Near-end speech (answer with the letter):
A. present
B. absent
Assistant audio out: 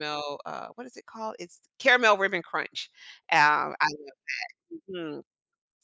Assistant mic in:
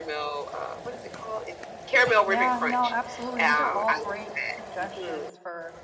A